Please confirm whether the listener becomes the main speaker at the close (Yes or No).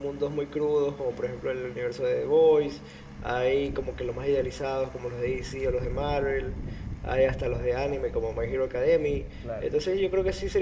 No